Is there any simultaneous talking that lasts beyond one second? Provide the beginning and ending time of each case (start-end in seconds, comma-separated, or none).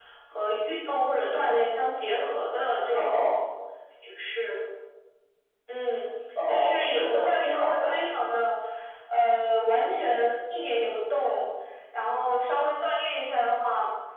6.5-7.9